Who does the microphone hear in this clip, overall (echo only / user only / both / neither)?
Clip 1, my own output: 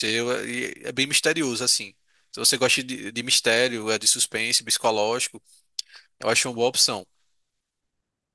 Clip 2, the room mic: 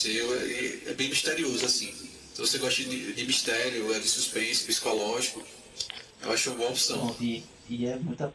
both